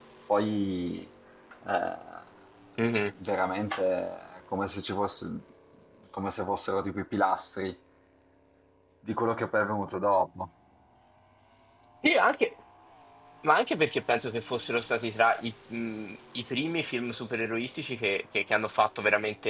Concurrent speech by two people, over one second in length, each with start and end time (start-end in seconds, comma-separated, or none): none